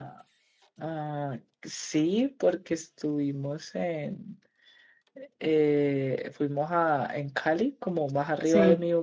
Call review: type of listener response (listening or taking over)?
listening